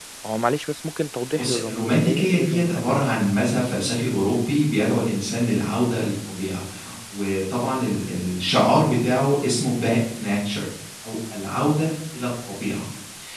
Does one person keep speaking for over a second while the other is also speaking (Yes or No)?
Yes